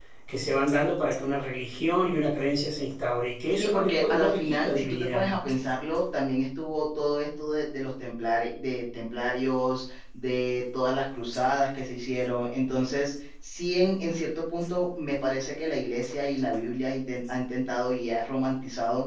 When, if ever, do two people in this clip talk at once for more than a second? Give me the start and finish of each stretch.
3.6-5.3

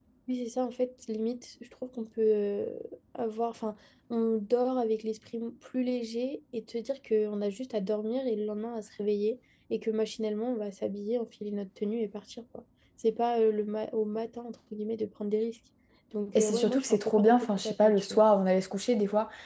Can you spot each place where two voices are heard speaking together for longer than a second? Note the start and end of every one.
16.4-18.2

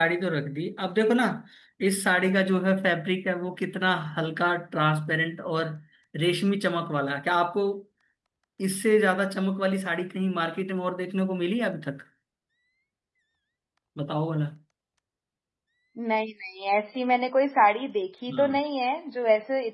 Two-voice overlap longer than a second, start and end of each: none

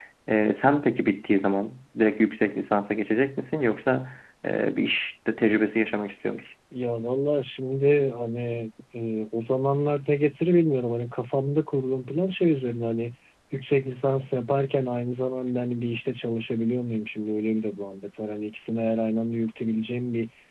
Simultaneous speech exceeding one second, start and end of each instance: none

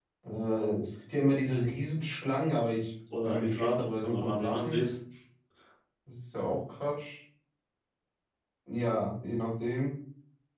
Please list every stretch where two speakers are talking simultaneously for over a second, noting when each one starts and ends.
3.2-4.8

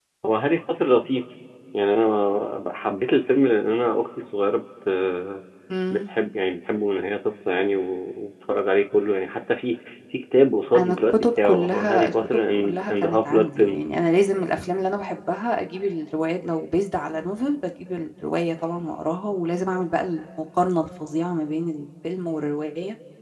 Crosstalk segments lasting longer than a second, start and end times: 10.8-13.8

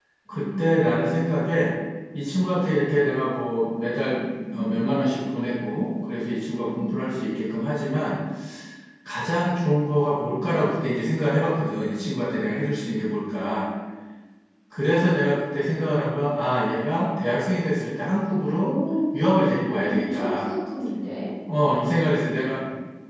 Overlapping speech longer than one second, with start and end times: 19.1-20.5

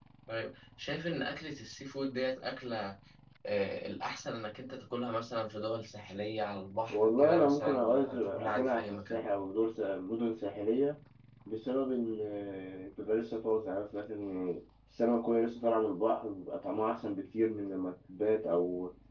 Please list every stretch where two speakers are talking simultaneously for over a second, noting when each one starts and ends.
6.9-9.2

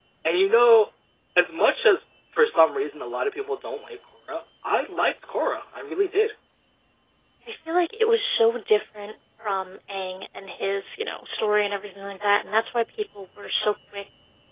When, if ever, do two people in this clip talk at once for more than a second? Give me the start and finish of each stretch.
none

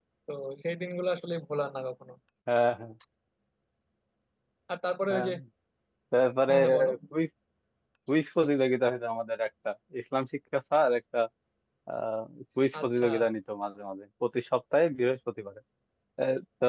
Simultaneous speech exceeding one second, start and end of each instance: none

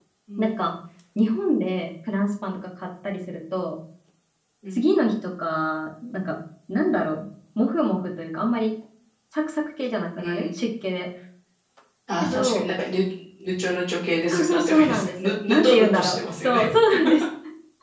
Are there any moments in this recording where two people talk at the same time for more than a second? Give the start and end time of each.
14.3-16.7

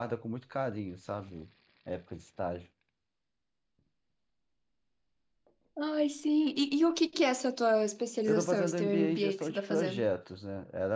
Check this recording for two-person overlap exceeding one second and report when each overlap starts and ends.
8.3-10.1

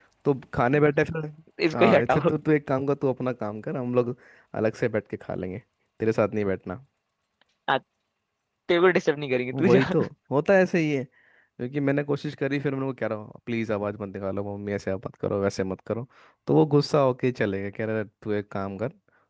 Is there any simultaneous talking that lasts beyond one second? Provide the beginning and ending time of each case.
none

